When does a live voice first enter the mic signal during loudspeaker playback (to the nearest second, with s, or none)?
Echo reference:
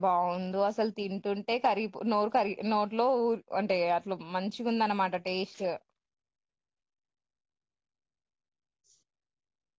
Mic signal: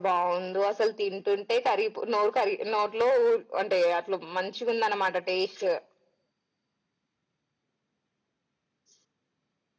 none